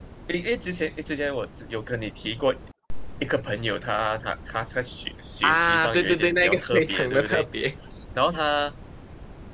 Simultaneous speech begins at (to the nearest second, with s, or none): 5 s